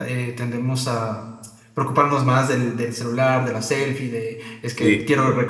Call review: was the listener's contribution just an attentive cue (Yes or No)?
Yes